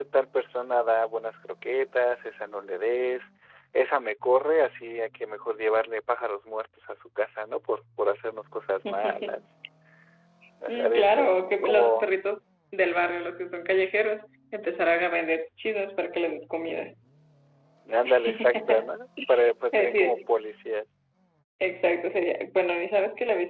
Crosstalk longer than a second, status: present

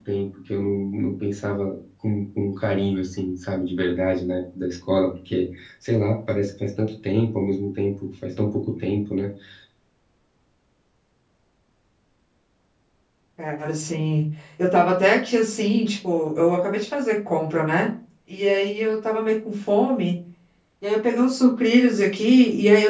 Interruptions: none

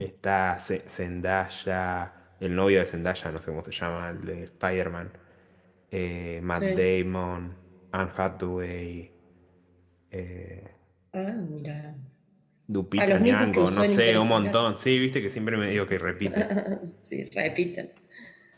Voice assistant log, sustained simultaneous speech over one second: present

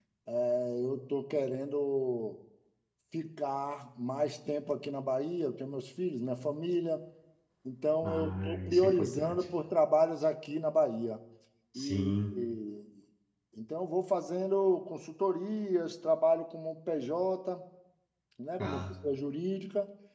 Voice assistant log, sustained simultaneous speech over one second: present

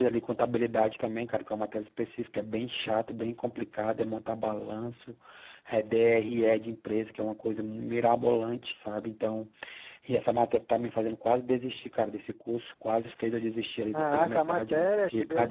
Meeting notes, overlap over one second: present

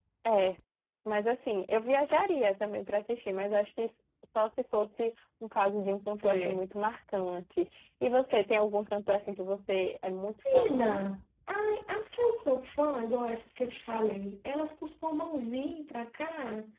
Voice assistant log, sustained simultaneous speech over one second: none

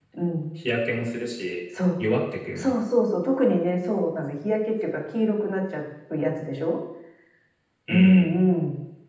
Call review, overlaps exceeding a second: none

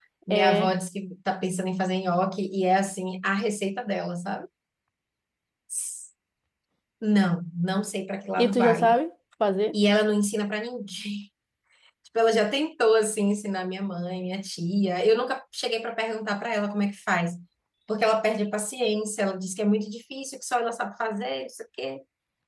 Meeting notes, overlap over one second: none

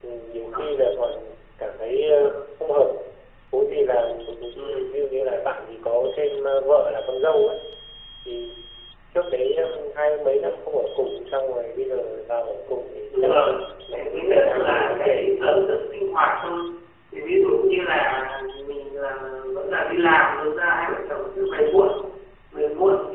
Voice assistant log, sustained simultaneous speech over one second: present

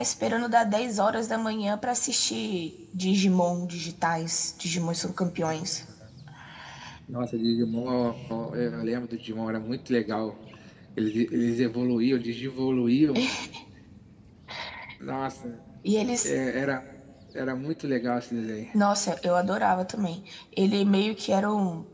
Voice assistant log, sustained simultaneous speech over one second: none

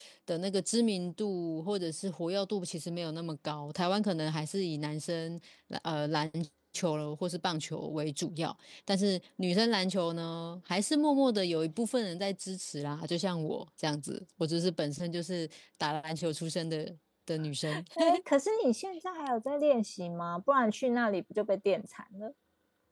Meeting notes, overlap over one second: none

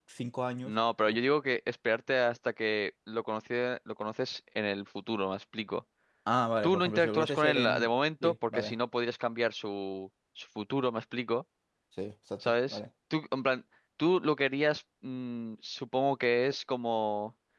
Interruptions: present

